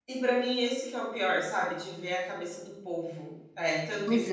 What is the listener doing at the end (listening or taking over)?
listening